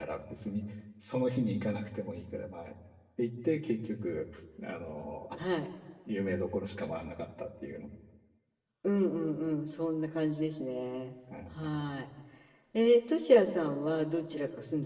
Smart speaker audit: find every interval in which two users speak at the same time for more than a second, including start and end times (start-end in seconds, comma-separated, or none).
none